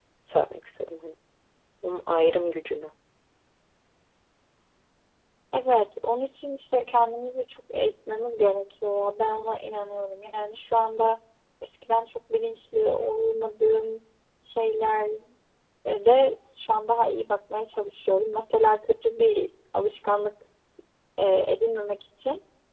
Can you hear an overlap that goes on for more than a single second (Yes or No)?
No